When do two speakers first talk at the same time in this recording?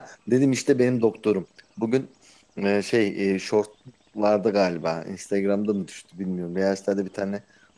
none

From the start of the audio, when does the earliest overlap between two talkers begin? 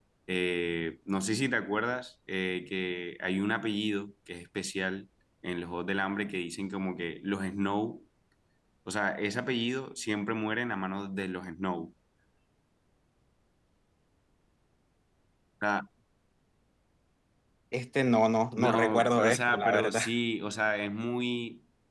18.6 s

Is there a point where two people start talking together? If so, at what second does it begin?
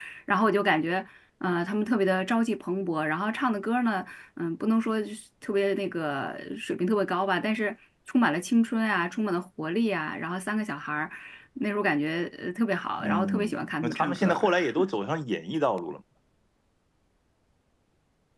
13.0 s

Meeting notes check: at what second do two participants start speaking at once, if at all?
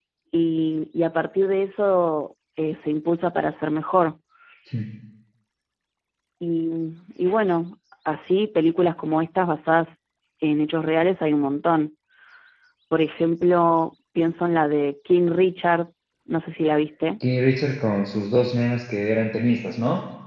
none

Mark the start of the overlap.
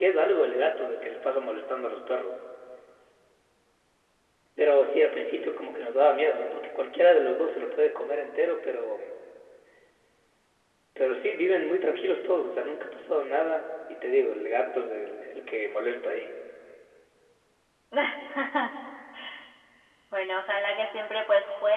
none

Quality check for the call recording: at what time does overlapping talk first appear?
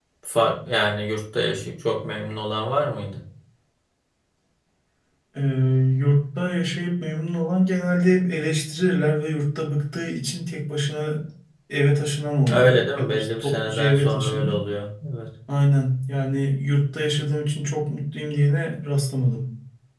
12.5 s

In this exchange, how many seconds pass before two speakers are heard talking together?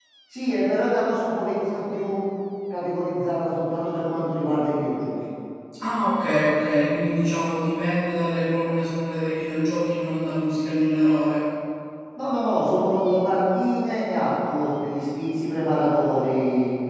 none

